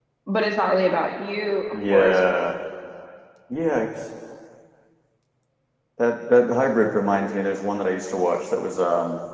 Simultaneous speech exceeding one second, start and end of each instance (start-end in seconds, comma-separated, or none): none